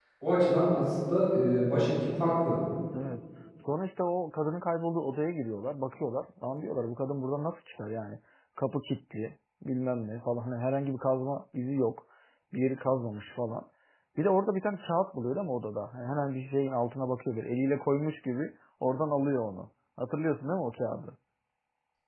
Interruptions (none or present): none